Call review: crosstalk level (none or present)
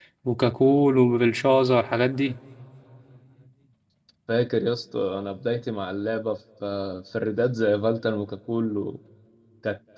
none